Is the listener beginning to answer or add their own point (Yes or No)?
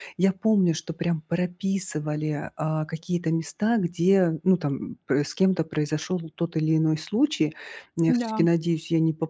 No